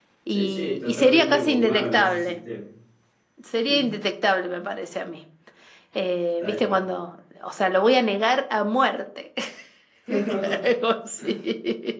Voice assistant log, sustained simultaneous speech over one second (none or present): present